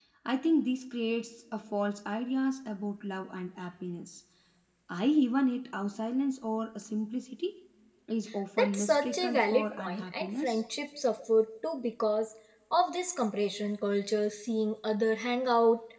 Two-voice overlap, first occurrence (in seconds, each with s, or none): 8.6 s